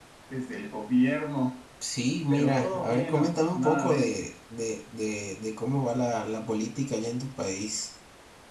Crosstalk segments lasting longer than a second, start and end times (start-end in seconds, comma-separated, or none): 2.3-4.3